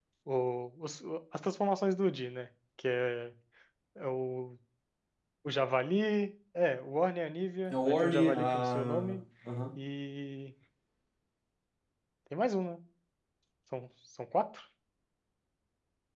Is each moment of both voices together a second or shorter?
No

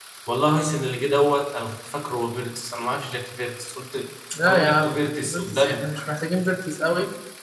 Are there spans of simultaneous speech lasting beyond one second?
Yes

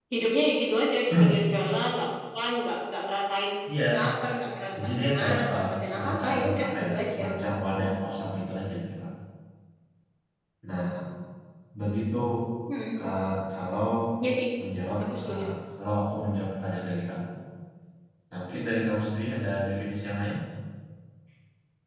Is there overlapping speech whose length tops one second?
Yes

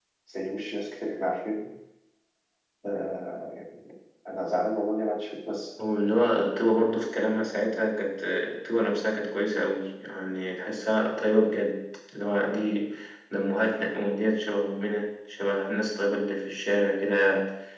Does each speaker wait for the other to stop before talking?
Yes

